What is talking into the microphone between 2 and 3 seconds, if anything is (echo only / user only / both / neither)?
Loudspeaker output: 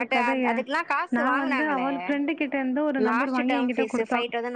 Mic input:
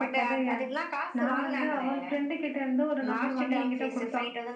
echo only